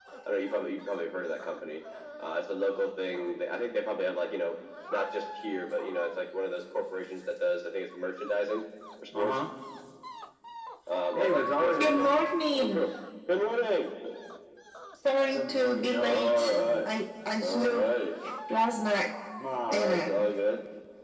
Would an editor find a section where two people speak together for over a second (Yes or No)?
Yes